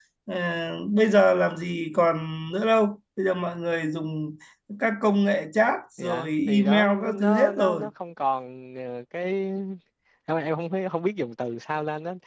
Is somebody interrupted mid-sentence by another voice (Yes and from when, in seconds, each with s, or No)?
Yes, from 6.0 s